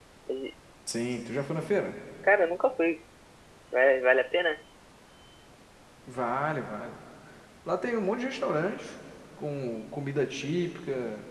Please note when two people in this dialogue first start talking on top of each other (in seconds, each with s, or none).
none